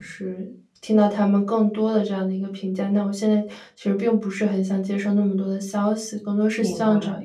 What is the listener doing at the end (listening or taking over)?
listening